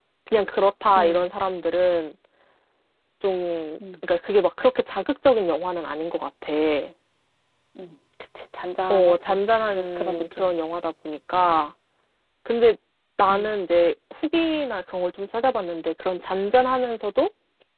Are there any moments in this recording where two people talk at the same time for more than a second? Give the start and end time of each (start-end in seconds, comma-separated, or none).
8.9-10.6